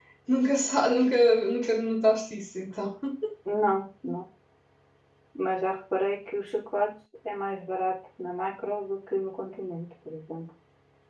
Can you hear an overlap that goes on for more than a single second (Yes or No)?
No